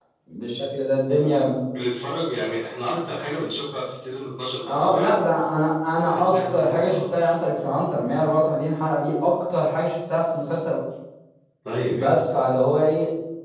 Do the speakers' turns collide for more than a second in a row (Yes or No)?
Yes